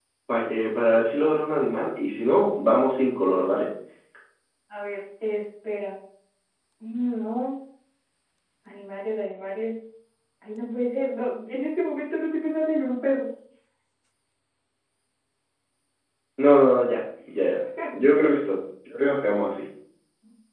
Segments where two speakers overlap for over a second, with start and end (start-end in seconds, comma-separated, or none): none